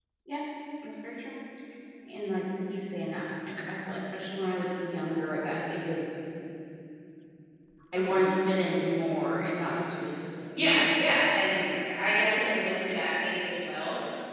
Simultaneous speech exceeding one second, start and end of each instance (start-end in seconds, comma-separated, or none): 10.6-12.1